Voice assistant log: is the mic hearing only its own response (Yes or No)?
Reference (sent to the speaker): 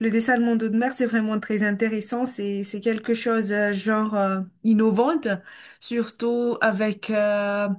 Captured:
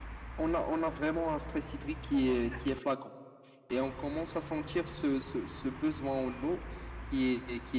No